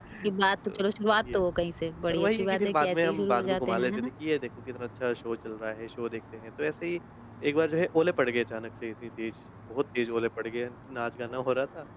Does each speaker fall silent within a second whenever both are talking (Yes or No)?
No